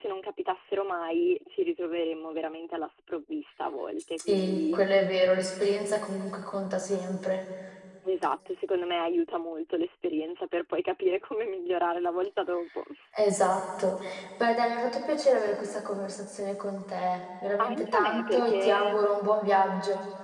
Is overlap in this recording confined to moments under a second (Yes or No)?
No